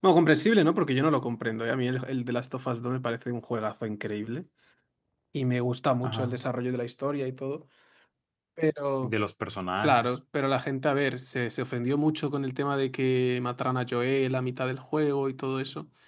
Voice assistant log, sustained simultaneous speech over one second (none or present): none